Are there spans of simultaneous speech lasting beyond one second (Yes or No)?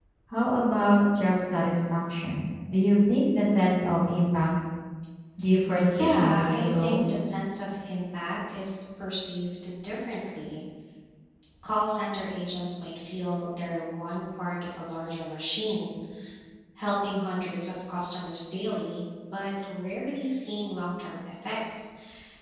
Yes